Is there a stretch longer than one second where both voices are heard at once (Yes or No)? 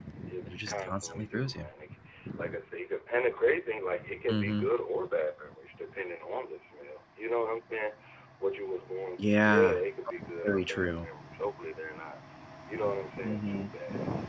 Yes